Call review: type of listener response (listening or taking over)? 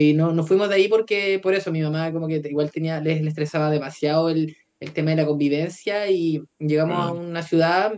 listening